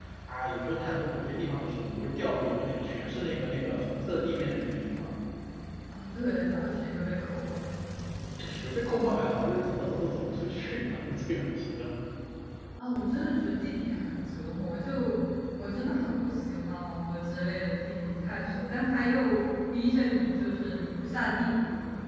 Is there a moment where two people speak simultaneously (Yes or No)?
No